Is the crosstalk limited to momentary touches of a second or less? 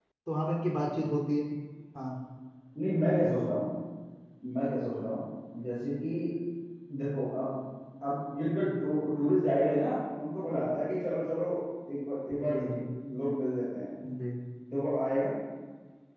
Yes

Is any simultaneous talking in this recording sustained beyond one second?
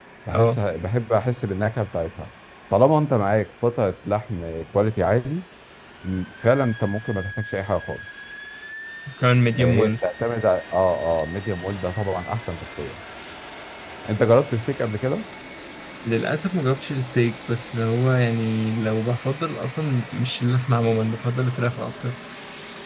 No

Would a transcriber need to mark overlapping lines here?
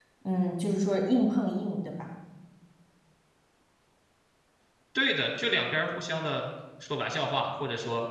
No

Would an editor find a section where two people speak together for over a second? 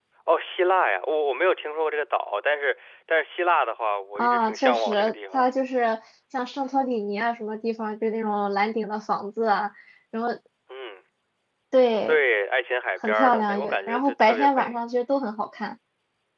Yes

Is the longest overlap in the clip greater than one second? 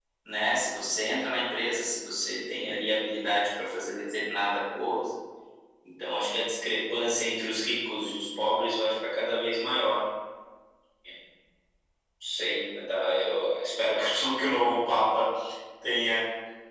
No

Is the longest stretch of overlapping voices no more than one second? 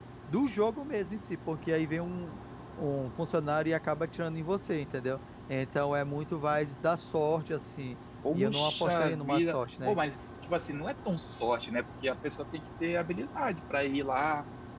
No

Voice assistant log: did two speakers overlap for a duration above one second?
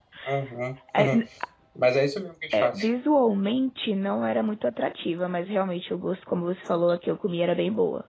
No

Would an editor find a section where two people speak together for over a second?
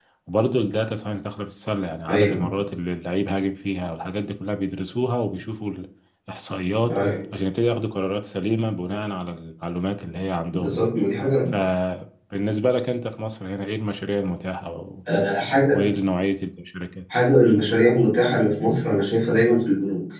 No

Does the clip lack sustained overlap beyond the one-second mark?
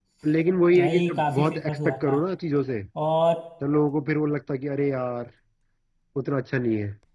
No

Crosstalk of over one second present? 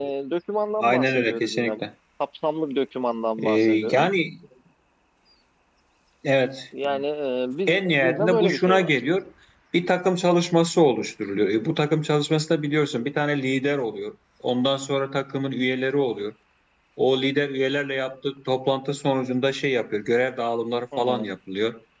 Yes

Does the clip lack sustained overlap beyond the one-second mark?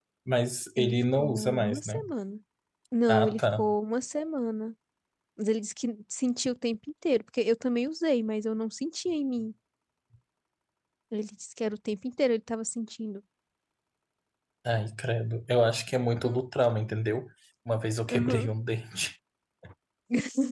No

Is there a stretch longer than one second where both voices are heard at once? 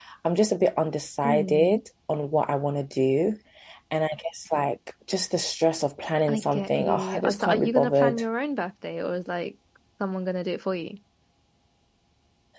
Yes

